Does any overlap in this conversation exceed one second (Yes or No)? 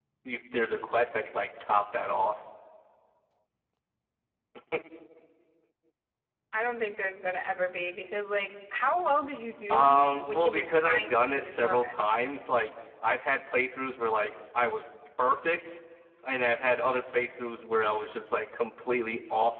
Yes